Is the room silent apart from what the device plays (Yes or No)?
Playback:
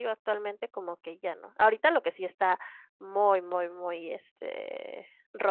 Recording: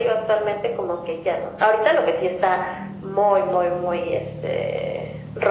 Yes